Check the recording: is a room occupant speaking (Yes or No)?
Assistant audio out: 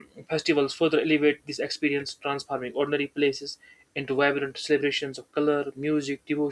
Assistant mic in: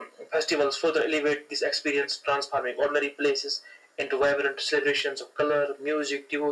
No